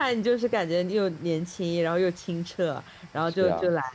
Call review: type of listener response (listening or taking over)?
listening